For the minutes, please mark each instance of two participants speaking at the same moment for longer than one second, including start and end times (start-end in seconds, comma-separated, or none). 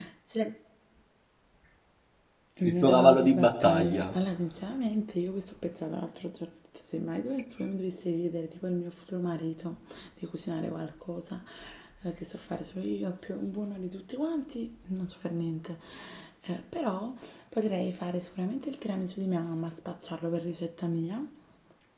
2.6-4.2